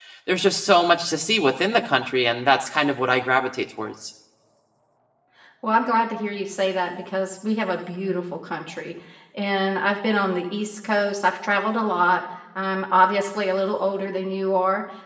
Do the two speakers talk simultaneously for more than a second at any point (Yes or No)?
No